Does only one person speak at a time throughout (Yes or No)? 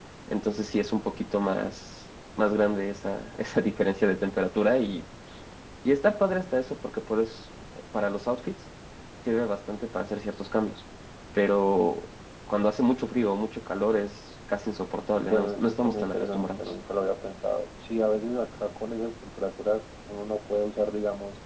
No